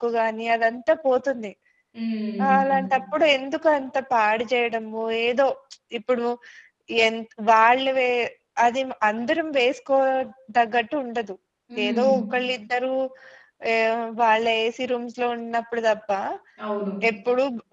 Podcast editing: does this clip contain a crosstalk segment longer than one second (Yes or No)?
No